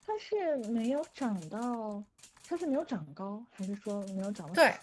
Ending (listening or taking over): taking over